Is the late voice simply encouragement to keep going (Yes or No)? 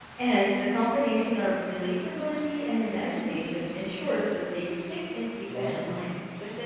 No